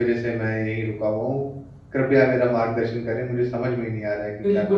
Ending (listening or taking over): taking over